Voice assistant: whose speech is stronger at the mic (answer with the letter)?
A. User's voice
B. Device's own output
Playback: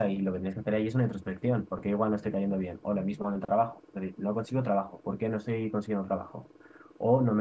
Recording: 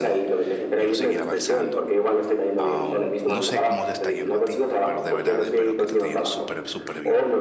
B